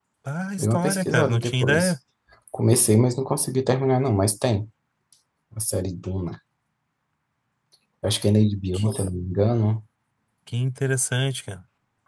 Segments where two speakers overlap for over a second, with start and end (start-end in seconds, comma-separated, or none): 0.6-1.9